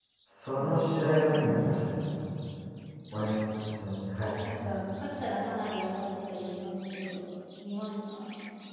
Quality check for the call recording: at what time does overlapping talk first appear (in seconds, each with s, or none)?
0.6 s